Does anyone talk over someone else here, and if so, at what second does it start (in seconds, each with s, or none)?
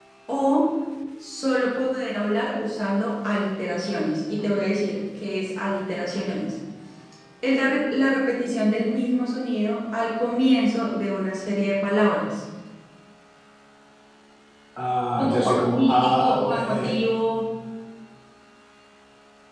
15.2 s